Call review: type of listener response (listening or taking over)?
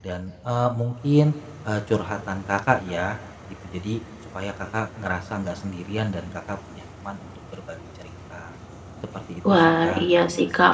taking over